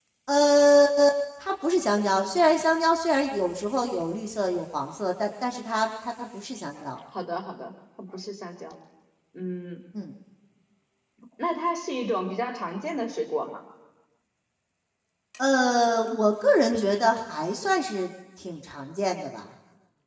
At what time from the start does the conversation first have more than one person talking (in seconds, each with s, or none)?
none